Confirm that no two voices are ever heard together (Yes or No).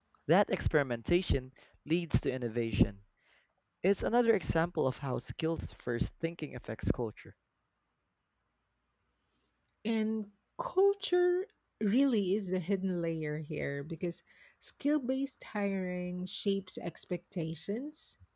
Yes